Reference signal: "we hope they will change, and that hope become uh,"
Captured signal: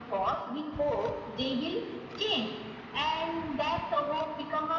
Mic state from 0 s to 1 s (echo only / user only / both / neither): echo only